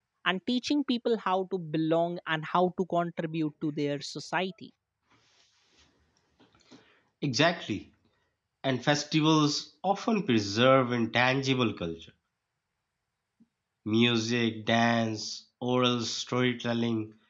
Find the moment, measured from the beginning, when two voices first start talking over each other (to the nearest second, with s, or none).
none